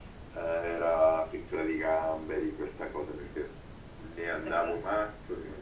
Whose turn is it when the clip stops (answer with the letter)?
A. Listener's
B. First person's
B